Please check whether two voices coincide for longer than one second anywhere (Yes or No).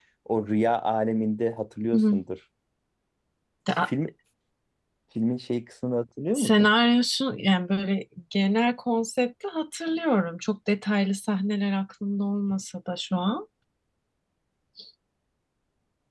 No